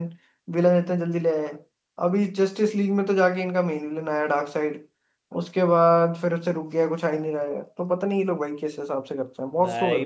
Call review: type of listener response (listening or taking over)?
taking over